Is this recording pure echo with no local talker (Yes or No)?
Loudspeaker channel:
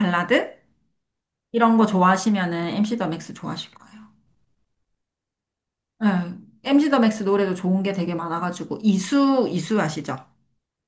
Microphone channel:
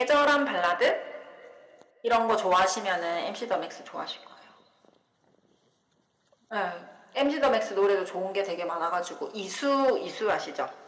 Yes